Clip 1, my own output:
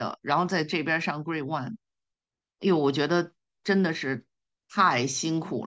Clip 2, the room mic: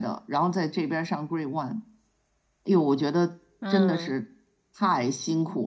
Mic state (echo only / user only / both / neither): both